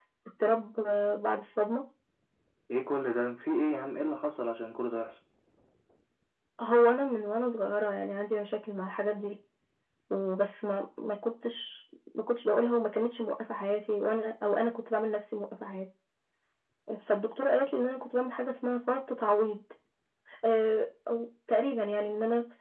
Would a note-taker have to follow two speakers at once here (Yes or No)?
No